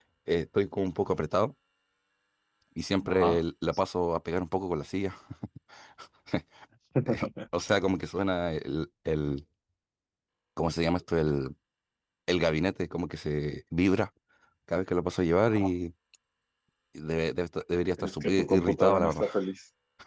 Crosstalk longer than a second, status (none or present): present